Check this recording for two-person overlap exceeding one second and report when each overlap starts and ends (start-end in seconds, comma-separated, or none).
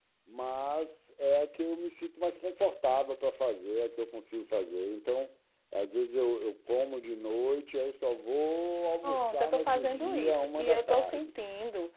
9.0-11.3